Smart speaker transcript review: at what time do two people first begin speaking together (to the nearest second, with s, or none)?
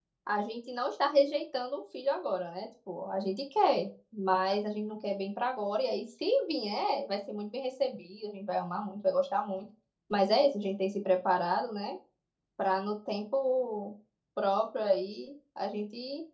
none